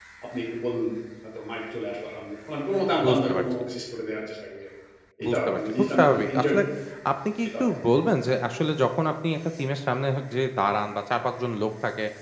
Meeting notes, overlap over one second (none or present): present